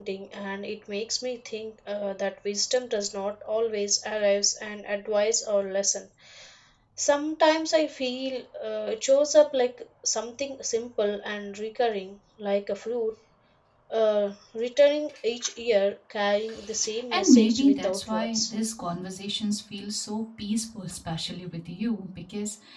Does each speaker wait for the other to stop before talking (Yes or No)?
No